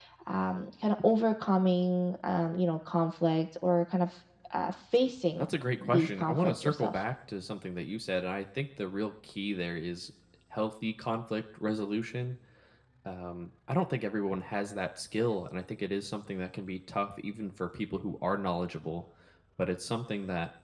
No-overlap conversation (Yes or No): No